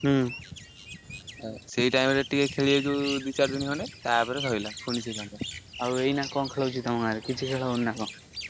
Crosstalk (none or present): none